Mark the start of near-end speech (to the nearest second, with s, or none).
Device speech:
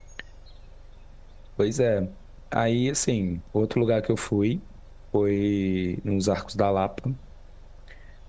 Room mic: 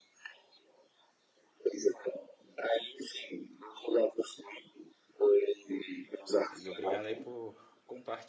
7 s